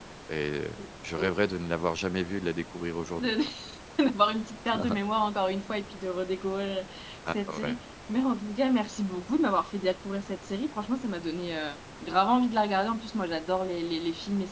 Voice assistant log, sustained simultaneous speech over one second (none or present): none